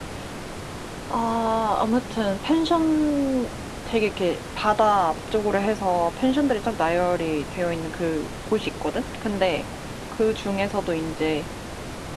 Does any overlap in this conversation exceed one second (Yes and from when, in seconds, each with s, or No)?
No